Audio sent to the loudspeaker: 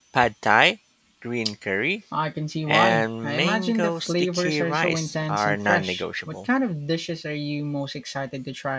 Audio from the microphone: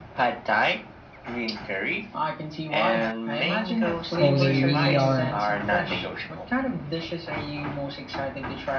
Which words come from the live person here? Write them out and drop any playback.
Oh, they really are.

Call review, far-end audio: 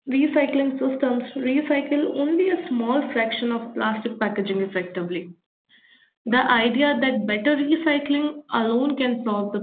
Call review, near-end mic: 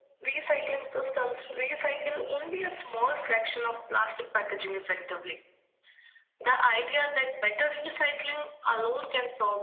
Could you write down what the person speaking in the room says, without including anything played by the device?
none

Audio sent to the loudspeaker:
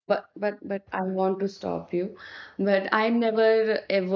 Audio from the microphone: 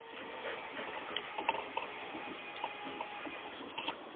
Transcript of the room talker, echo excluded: none

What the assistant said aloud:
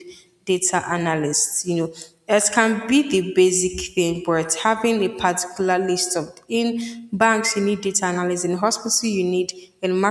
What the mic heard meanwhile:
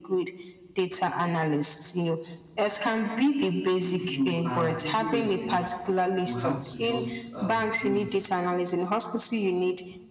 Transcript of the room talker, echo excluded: if you are into this field, you have to just um, do it.

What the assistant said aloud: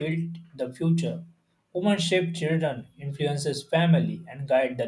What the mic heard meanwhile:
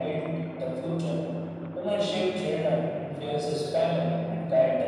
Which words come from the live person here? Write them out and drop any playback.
none

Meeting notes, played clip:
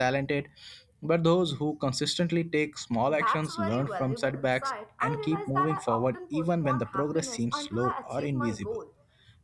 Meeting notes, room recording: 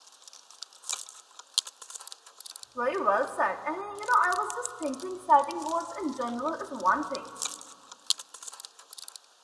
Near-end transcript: Very well said. And you know, I was just thinking setting goals in general is one thing,

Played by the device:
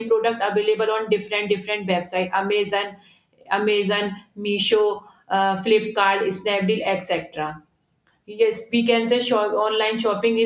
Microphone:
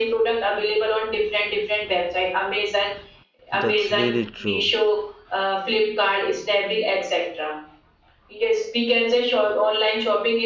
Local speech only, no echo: that's really true

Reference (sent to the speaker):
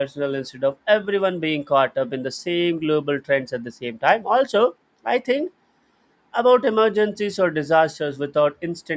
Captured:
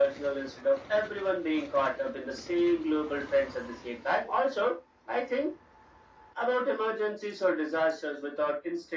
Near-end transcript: none

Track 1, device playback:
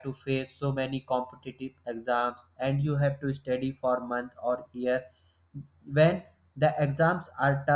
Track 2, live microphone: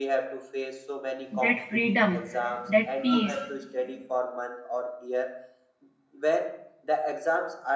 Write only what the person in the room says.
that freedom that peace

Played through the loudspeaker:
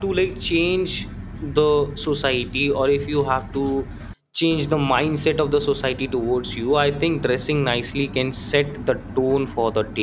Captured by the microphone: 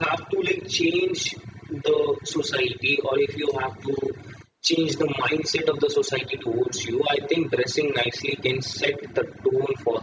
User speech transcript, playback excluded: none

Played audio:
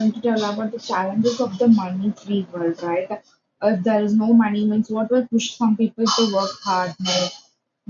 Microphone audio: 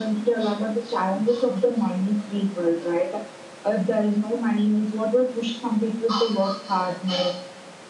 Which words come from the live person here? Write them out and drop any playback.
none

